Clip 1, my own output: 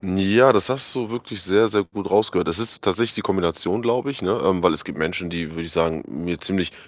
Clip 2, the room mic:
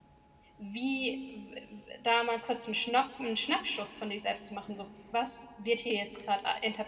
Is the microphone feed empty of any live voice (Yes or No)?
No